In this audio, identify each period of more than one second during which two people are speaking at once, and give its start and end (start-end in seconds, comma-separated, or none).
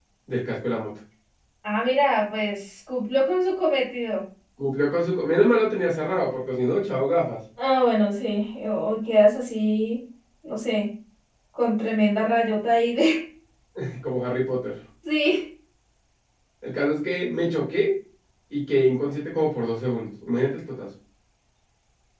none